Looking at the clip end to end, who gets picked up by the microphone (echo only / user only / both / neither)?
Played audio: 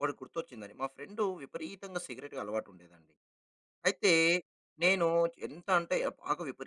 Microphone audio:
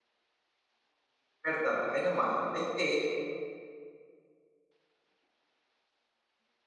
user only